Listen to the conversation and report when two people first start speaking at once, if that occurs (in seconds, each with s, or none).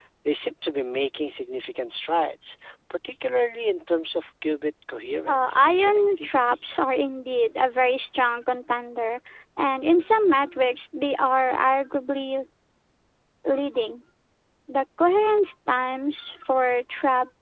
5.3 s